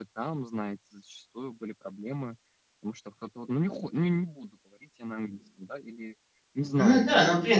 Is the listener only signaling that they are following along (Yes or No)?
No